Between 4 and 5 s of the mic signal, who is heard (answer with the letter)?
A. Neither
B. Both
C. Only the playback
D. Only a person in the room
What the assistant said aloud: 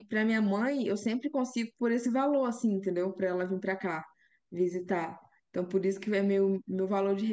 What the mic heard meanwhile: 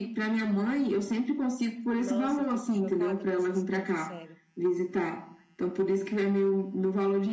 B